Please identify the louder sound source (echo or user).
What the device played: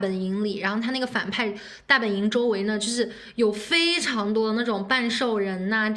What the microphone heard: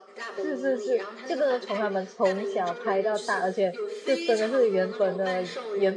user